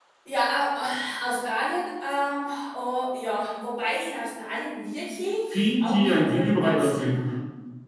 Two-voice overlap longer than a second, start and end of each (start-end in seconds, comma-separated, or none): 5.5-7.2